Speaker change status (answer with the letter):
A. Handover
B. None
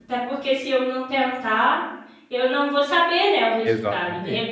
B